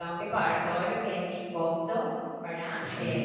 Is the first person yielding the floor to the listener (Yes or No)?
No